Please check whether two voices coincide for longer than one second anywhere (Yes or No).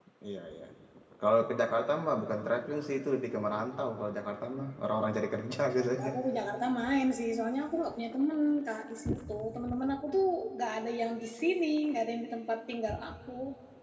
No